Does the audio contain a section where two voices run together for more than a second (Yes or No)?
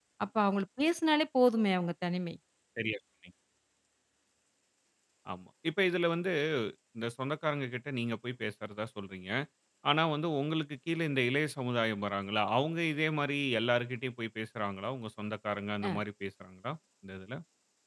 No